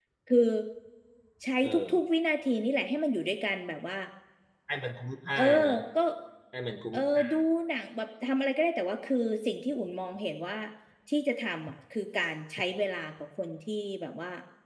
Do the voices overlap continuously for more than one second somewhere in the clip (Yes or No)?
No